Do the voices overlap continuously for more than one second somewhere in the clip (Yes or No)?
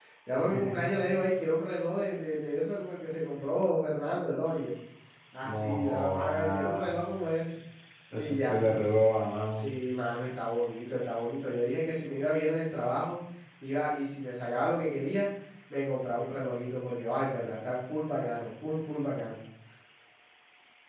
Yes